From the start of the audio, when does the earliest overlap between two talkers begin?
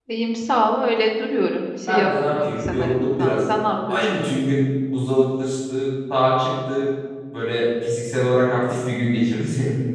2 s

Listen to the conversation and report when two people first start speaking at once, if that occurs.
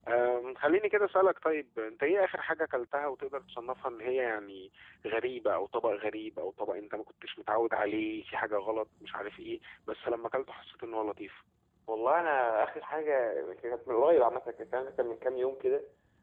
none

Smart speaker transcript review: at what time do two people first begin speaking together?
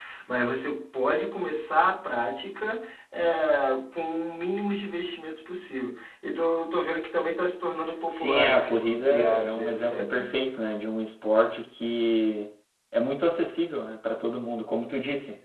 8 s

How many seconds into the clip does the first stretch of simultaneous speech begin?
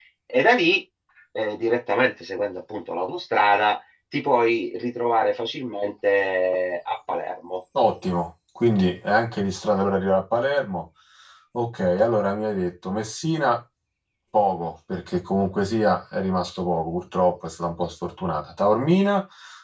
none

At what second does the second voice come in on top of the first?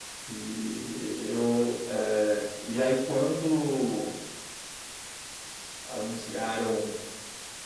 none

